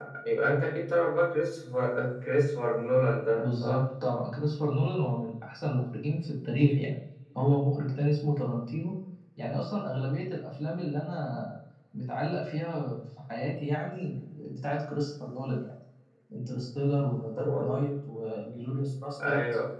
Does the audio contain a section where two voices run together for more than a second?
No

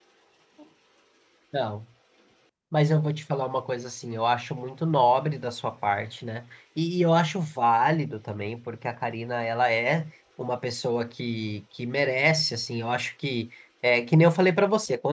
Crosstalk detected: No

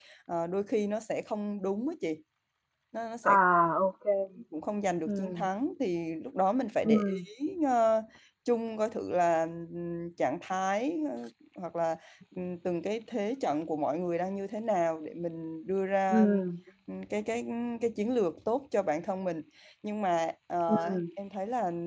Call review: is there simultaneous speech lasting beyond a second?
No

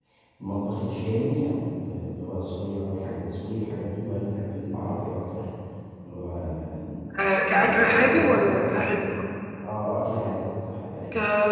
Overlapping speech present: Yes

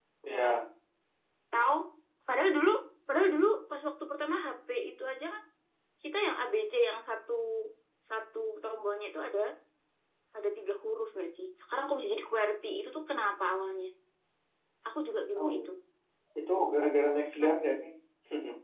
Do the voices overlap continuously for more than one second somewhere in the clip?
No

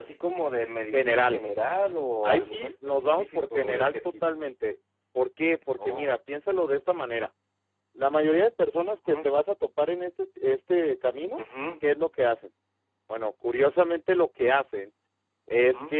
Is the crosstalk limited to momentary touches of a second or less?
No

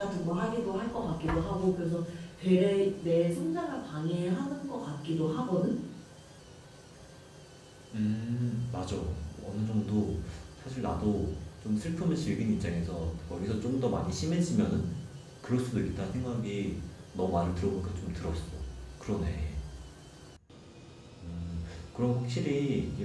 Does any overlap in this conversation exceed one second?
No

